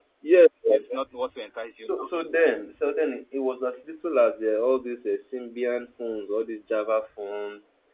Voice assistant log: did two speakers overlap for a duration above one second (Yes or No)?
No